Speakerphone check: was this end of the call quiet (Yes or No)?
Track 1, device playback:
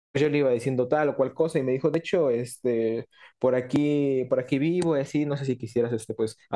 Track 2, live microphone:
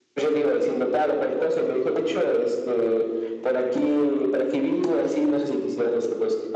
Yes